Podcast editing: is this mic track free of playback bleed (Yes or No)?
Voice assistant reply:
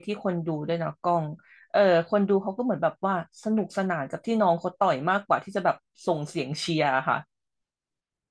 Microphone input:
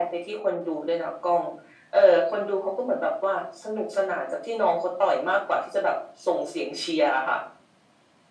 No